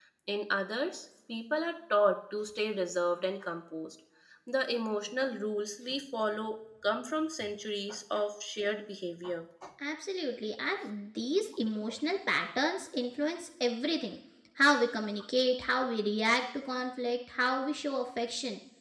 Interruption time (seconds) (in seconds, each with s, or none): none